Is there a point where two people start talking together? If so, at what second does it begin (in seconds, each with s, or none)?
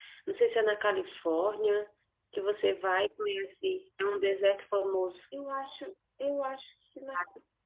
none